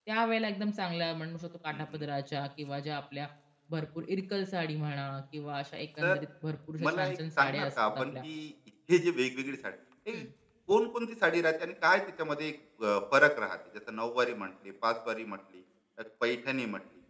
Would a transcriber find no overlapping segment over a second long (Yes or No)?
No